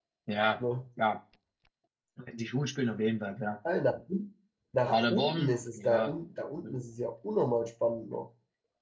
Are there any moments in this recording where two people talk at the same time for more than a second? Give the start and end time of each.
4.9-6.1

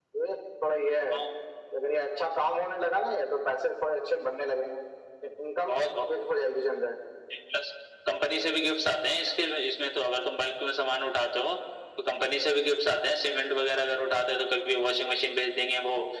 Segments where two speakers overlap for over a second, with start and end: none

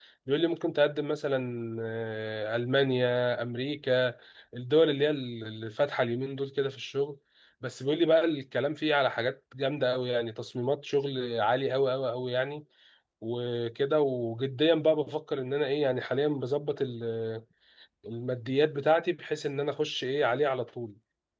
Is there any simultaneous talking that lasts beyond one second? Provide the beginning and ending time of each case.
none

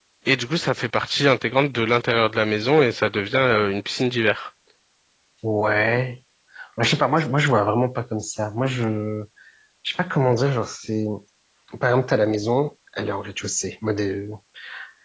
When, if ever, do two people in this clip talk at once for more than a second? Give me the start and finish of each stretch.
none

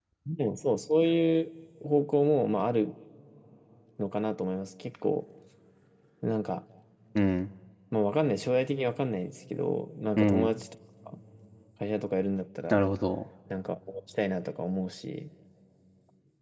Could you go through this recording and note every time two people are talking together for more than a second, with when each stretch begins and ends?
none

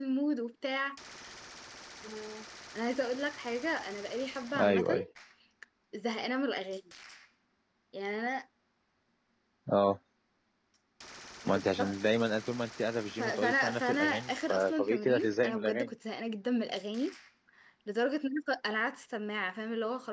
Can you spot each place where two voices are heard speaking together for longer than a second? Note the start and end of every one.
13.2-15.9

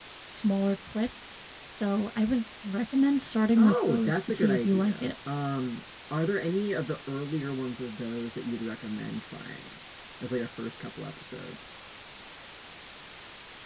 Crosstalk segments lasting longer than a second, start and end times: 3.6-5.1

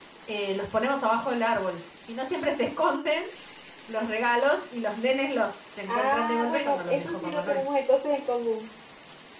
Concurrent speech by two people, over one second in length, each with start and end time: 5.9-7.6

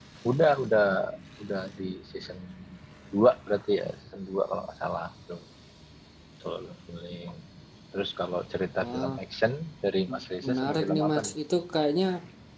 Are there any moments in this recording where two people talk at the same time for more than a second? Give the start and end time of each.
10.1-11.3

